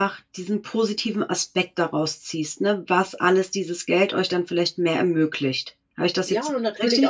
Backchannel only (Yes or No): No